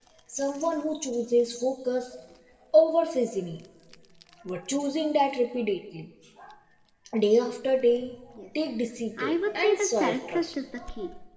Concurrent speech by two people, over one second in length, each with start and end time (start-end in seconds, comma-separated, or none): 9.2-10.5